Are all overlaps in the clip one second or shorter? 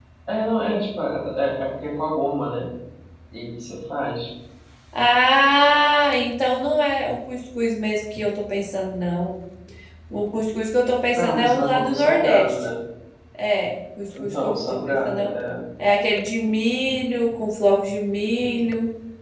No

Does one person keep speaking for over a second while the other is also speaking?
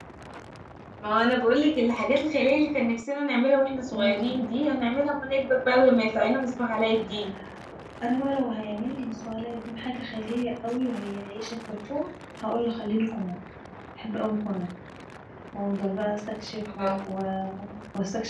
No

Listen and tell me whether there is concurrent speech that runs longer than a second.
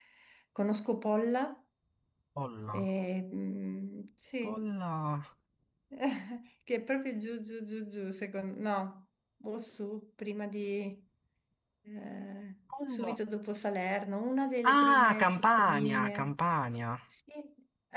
Yes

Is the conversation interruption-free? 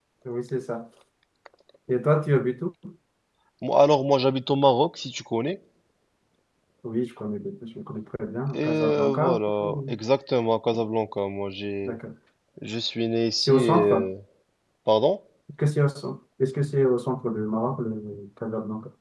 No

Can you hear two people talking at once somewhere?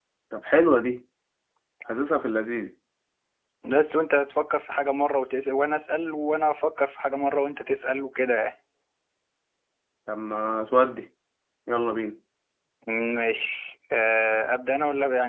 No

